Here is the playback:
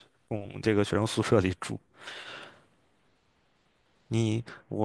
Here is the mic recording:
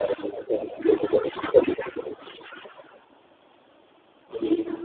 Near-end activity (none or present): none